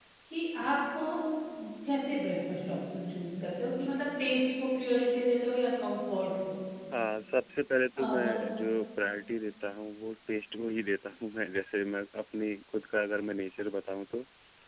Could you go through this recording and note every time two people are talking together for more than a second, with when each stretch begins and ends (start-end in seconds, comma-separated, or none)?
none